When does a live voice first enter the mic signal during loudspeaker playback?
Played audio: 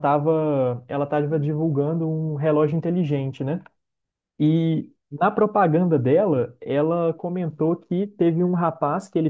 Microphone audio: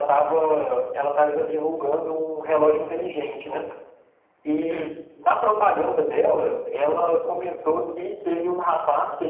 4.7 s

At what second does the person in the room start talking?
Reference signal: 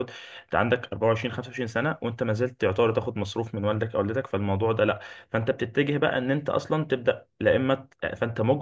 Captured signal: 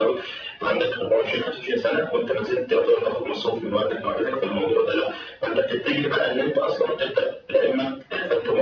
none

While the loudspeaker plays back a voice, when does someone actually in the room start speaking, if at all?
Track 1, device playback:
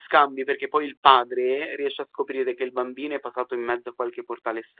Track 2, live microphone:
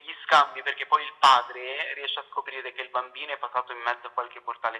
none

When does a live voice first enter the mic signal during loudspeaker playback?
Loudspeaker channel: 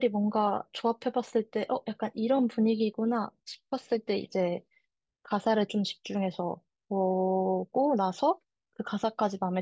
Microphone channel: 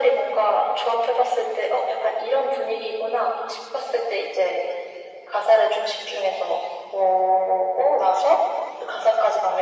none

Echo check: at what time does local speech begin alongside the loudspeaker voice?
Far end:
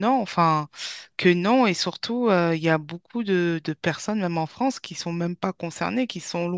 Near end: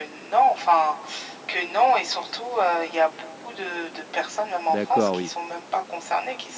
4.7 s

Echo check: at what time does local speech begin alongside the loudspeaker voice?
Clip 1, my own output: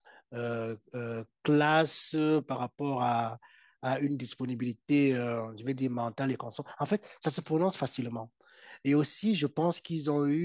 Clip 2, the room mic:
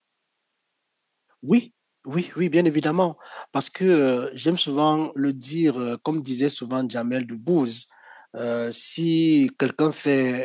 1.4 s

